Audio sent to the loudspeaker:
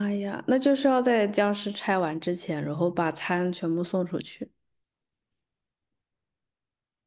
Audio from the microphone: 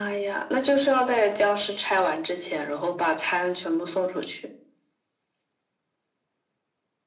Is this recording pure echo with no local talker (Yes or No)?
Yes